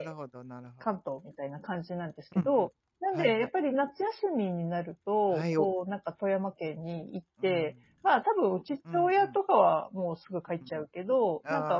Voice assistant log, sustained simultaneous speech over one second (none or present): none